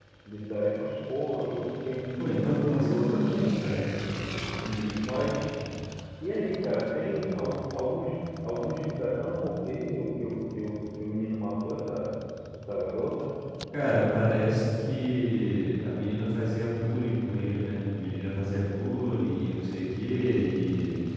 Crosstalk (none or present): present